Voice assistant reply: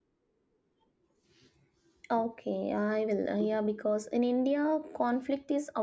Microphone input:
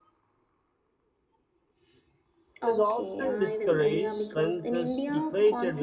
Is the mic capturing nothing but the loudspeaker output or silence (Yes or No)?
No